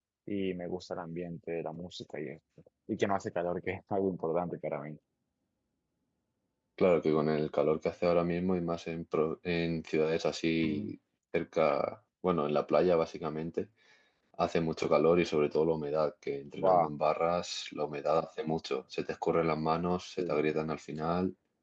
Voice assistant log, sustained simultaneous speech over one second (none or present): none